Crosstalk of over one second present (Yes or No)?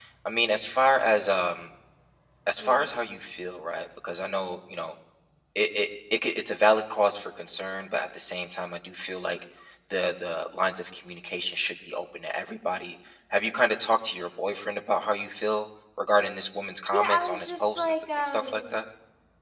Yes